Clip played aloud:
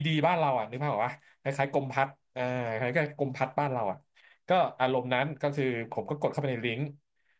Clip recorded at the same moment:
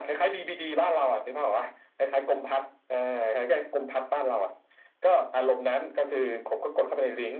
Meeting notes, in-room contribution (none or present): none